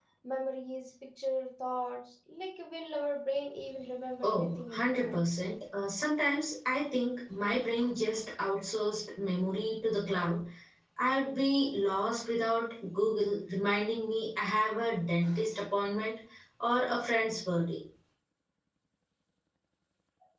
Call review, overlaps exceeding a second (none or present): present